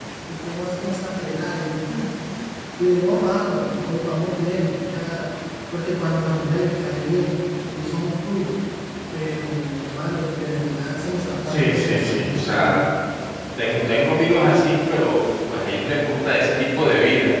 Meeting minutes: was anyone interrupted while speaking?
Yes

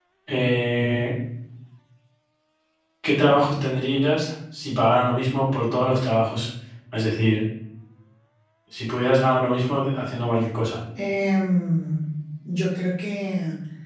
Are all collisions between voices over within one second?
Yes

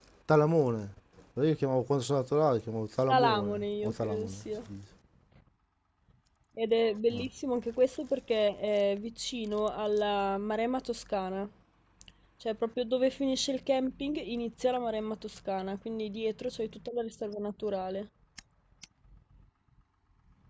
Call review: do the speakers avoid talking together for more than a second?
No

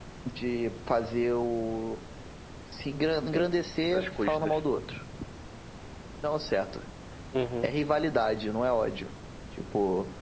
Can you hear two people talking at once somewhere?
Yes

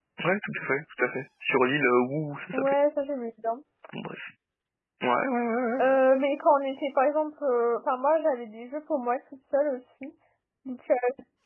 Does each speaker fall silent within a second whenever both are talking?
Yes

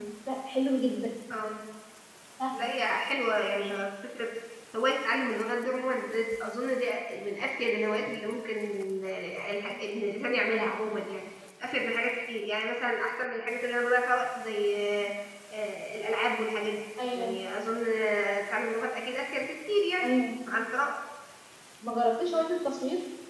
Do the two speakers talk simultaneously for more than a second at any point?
No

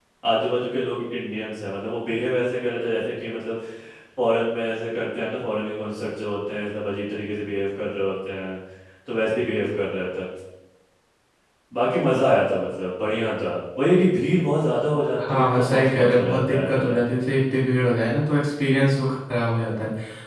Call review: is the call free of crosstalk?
No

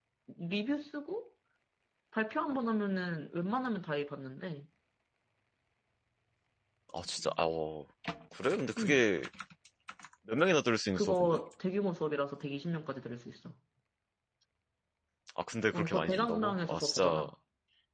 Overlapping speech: Yes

